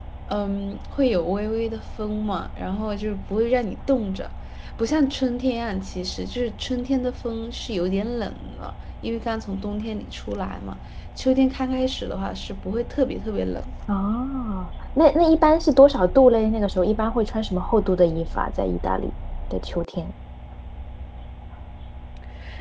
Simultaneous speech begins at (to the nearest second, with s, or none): none